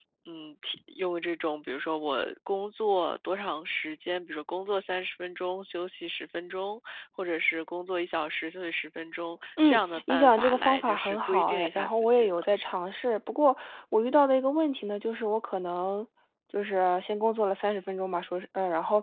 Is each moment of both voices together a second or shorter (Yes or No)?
No